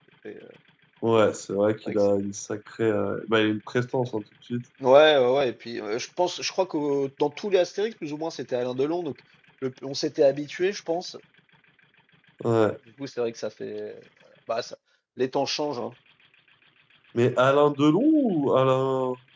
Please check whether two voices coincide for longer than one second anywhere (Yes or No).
No